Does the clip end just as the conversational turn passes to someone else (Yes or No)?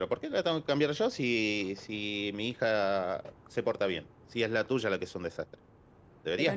Yes